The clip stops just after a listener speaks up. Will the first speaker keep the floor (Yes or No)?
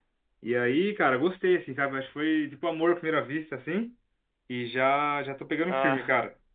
Yes